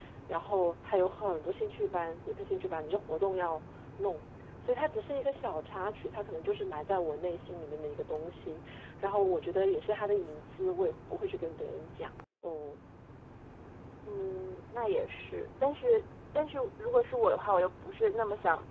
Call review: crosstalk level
none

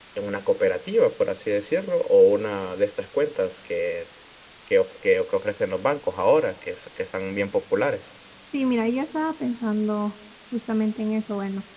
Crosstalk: none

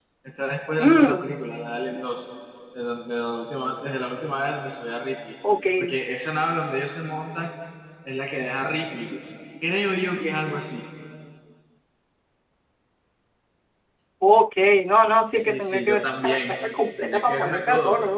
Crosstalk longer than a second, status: present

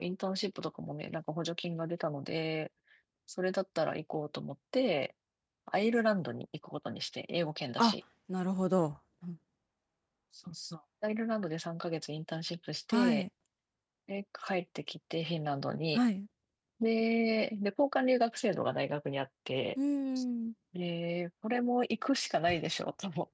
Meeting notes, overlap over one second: none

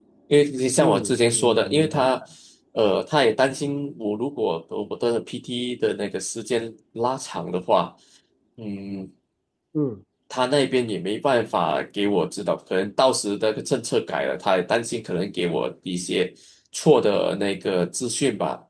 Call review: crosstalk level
present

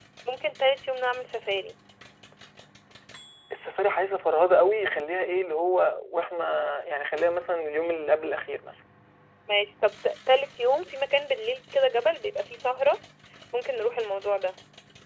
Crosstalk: none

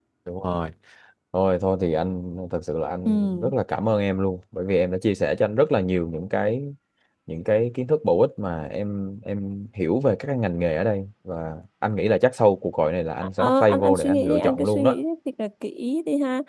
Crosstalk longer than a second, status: present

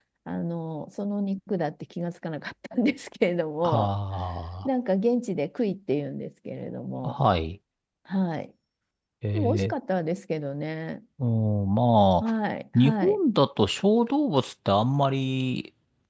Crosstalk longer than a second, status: none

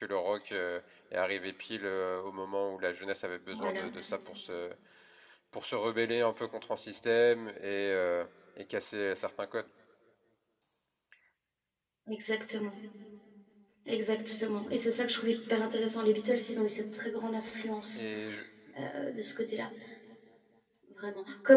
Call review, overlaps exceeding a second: none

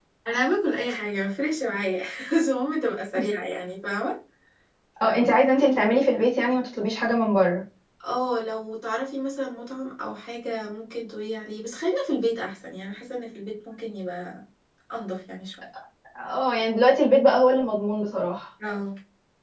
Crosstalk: none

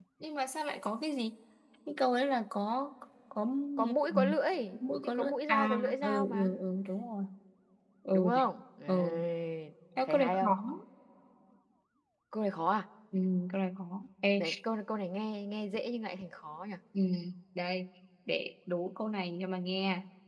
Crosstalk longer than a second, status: present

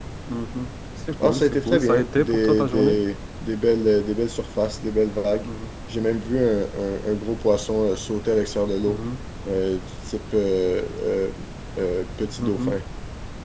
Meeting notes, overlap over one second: present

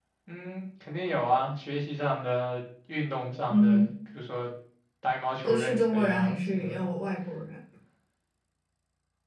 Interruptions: present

